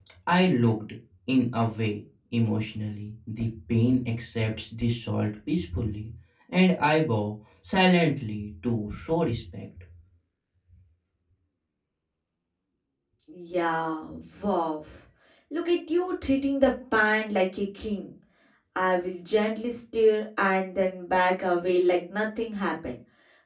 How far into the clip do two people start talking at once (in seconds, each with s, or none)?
none